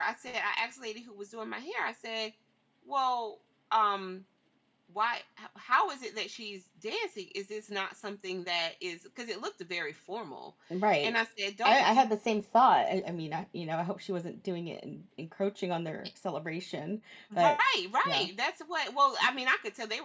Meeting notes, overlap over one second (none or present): none